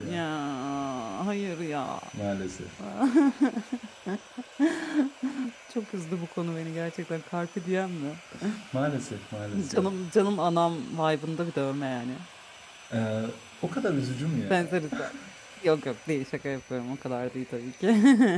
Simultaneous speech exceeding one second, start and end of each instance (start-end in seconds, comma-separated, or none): none